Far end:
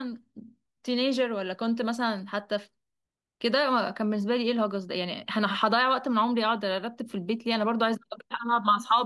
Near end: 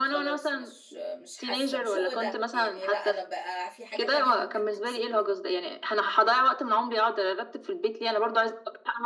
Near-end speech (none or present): present